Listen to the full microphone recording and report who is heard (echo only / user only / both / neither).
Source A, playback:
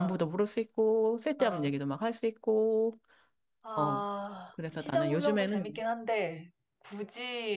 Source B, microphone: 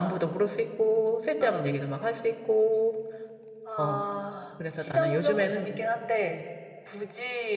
echo only